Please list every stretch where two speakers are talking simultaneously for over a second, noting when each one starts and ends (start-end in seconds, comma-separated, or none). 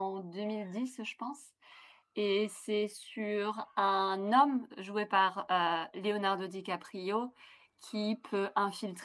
none